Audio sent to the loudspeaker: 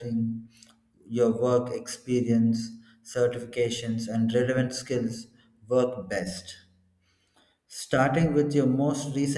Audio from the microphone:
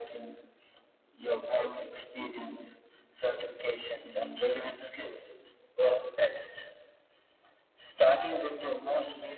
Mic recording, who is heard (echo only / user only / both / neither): echo only